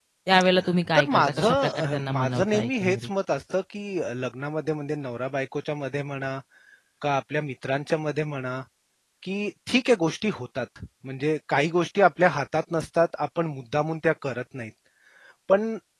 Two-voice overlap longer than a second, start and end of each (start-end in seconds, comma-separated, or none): 1.0-3.1